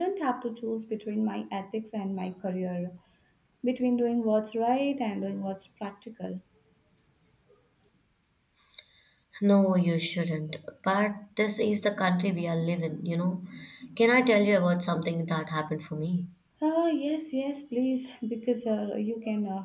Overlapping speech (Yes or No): No